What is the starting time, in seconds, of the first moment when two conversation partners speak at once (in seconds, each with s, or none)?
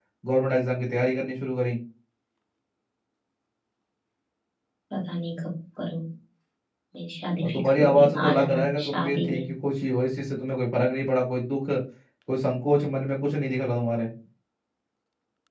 7.4 s